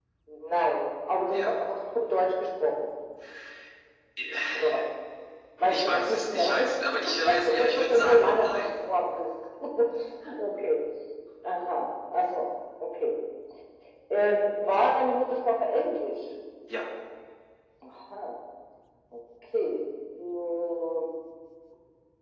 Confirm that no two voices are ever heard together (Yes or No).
No